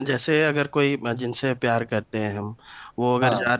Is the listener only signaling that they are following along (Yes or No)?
Yes